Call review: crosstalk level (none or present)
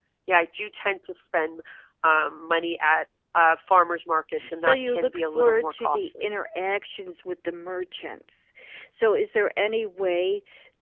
present